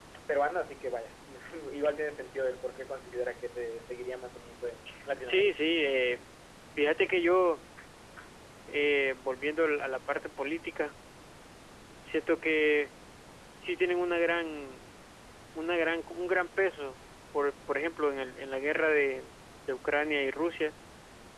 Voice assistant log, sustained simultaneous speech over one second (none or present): none